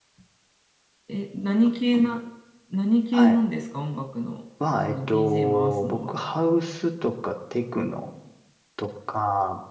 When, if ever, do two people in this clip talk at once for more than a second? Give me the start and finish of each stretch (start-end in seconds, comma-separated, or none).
4.9-6.2